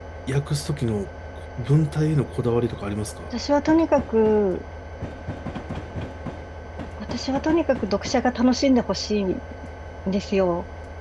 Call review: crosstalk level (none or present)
none